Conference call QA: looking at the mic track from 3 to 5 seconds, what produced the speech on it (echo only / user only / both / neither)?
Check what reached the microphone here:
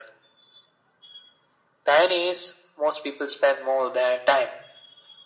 echo only